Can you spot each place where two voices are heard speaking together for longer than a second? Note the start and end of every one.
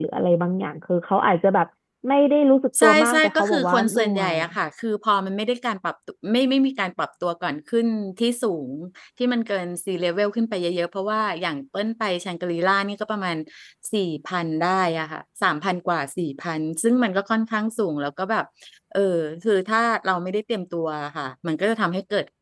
2.8-4.4

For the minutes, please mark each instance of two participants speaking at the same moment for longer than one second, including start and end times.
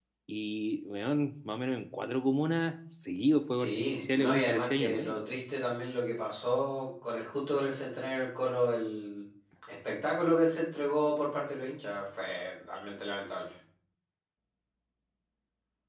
3.6-5.3

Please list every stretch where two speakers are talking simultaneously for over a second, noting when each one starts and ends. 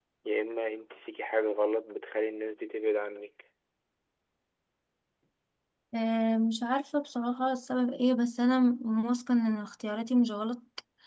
none

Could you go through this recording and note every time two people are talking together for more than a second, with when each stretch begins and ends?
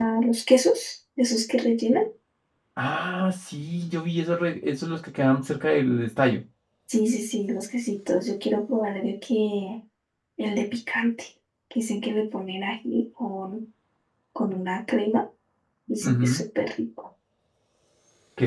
none

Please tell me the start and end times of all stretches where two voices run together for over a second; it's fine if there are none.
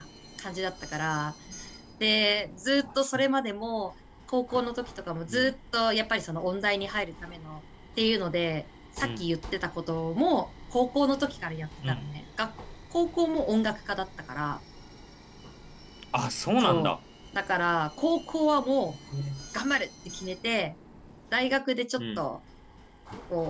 none

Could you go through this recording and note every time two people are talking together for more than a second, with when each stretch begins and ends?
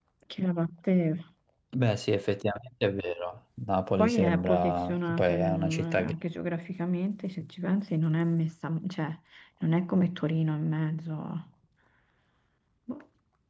4.0-6.1

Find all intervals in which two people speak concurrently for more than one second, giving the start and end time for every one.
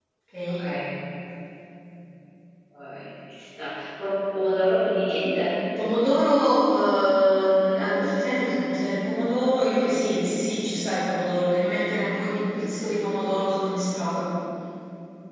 none

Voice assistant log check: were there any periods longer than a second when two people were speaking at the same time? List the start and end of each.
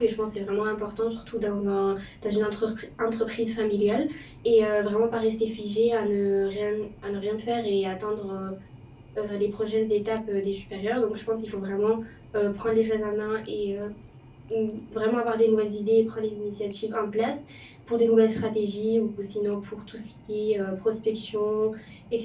none

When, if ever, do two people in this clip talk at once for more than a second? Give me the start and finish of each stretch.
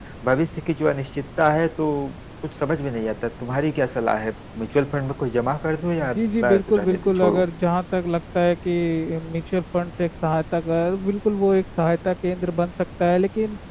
6.0-7.5

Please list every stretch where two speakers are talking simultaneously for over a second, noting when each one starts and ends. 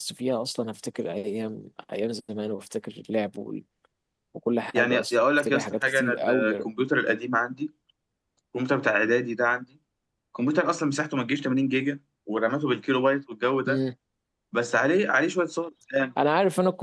4.7-6.7

